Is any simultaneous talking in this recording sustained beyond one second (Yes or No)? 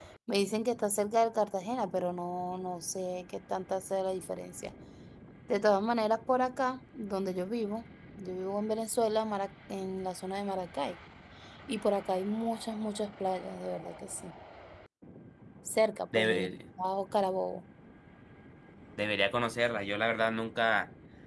No